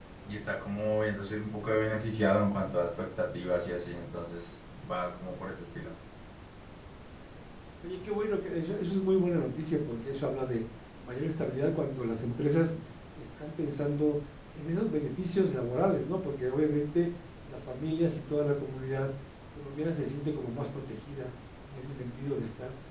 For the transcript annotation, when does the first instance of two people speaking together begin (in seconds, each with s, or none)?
none